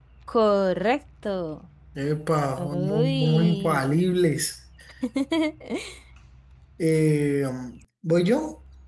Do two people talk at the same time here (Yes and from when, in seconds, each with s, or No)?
Yes, from 2.6 s